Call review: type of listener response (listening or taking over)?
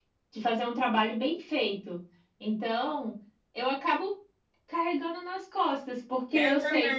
listening